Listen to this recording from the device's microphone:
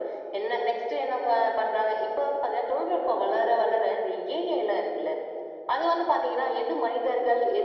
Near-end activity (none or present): none